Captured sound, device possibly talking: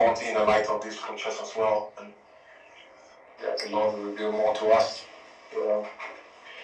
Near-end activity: none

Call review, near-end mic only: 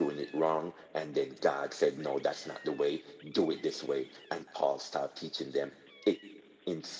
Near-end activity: none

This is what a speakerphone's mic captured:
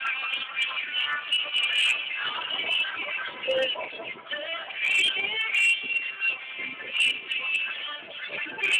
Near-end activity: none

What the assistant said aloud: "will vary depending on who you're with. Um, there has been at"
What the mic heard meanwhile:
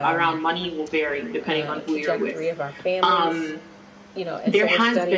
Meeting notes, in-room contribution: present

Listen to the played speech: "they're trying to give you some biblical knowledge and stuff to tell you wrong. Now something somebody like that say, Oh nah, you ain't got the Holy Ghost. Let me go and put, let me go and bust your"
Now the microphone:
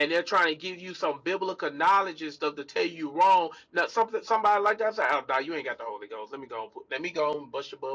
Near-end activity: none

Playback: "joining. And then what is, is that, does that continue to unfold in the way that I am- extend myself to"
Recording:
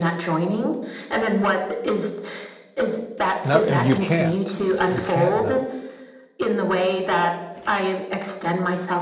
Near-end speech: present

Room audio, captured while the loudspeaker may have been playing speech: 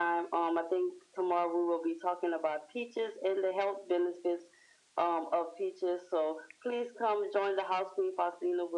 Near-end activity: none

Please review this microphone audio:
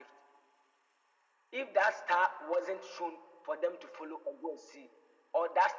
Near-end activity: none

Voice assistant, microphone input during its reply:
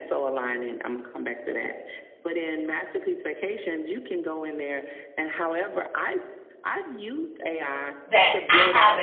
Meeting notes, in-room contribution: present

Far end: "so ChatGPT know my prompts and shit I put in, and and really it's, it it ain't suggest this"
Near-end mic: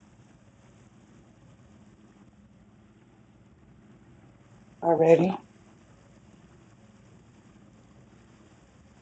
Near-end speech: present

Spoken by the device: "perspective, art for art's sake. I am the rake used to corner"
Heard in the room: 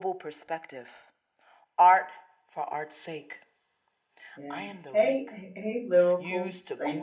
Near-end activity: present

